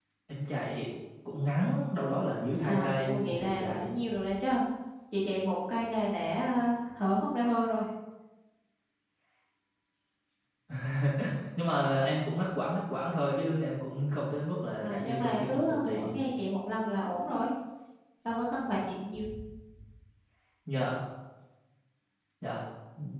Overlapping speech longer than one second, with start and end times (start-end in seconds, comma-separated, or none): 2.6-3.9, 14.8-16.0